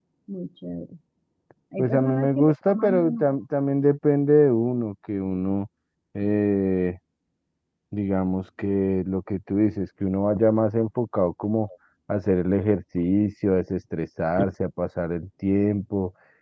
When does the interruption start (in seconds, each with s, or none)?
1.8 s